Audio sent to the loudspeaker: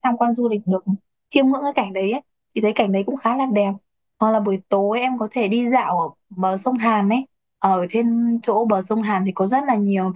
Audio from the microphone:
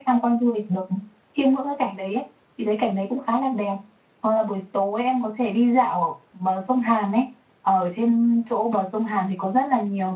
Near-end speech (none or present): none